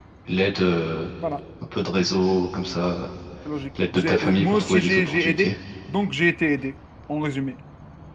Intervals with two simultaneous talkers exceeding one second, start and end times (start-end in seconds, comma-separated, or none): 4.0-5.5